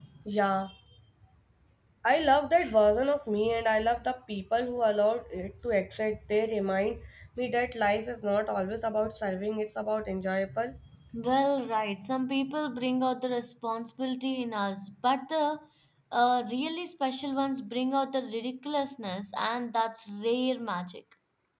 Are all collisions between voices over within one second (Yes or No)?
Yes